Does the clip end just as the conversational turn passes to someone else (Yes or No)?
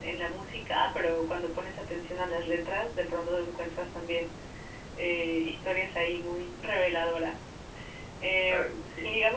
No